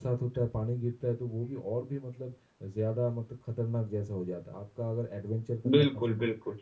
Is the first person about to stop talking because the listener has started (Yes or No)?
No